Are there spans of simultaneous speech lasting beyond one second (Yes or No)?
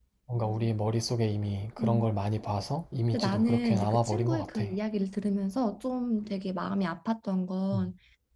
Yes